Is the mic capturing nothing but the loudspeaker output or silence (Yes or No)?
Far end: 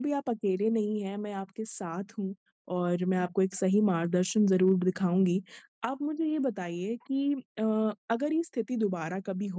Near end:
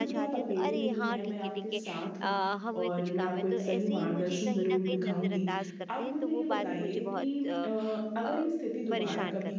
No